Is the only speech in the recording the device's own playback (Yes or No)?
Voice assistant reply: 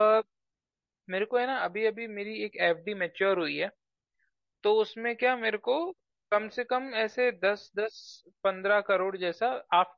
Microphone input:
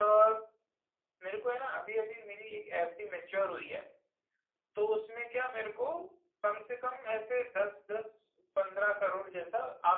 Yes